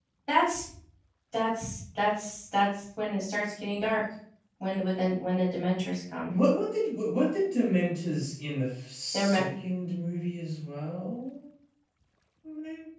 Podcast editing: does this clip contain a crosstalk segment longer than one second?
No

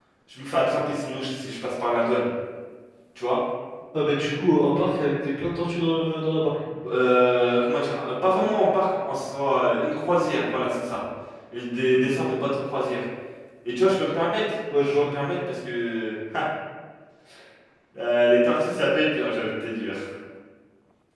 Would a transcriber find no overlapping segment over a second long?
Yes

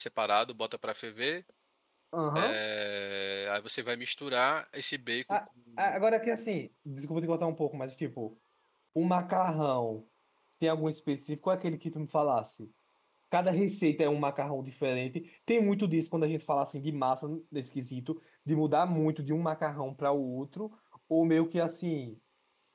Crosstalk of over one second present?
No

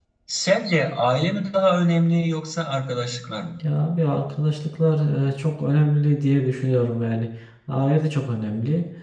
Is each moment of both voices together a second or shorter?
Yes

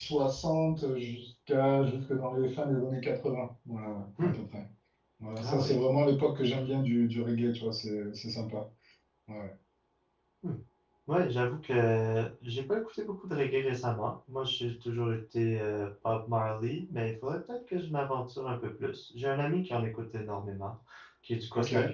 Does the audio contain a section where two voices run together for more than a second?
No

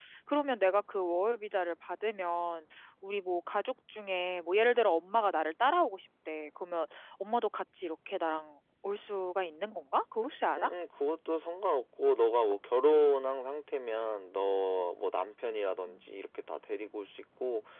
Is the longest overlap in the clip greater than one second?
No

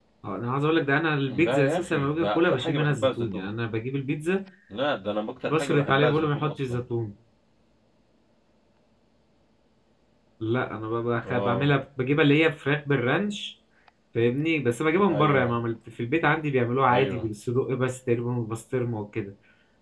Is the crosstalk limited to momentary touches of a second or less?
No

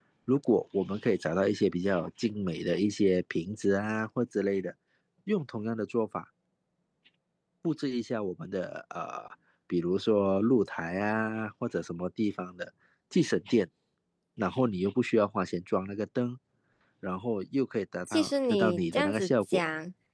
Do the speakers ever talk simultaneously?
Yes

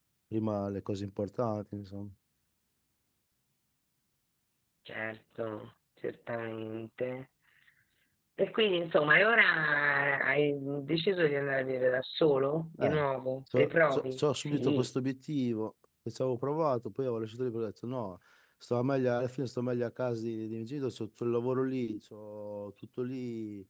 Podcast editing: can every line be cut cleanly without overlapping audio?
No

